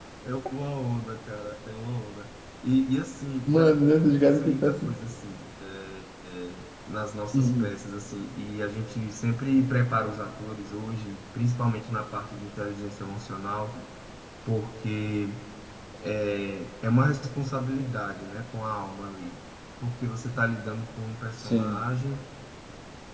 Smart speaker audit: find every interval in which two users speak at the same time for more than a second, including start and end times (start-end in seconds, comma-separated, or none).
3.5-5.0